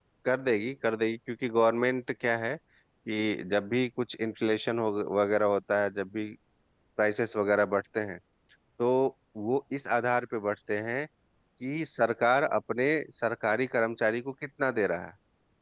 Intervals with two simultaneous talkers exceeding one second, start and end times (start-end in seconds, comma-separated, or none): none